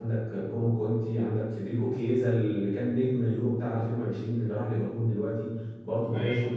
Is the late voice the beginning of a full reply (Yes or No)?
No